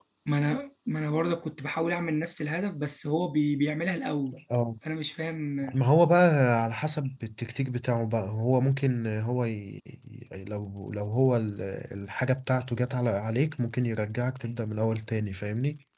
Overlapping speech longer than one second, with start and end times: none

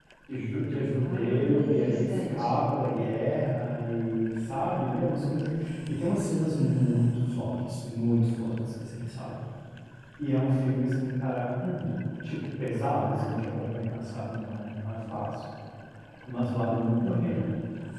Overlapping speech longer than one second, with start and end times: 1.0-2.7

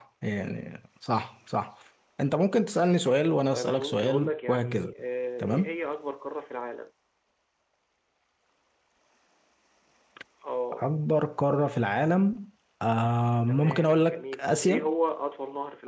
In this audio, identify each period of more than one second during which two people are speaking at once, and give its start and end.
3.5-4.9, 13.5-14.9

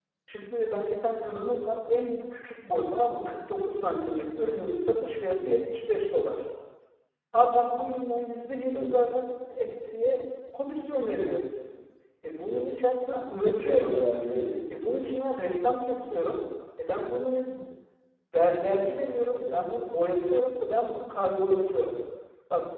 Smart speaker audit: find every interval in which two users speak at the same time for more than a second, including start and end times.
none

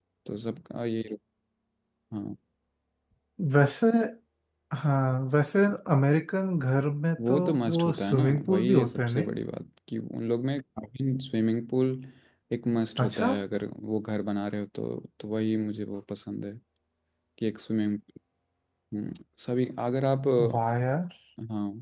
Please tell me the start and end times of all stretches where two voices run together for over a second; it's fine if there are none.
7.3-9.3

